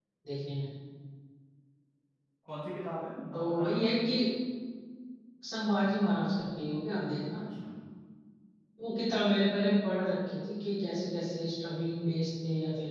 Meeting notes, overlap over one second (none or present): none